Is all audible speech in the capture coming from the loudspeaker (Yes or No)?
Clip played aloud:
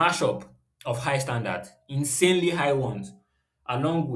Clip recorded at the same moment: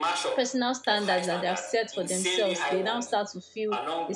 No